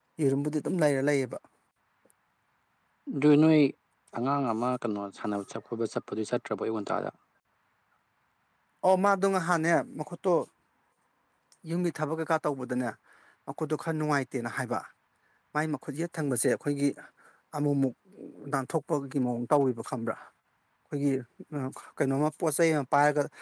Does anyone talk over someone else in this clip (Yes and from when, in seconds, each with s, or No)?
No